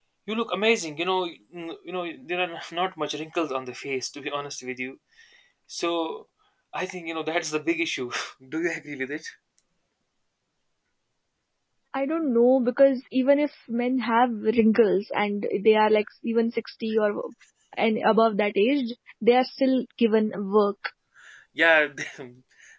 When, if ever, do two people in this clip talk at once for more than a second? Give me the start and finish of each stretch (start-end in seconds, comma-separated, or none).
none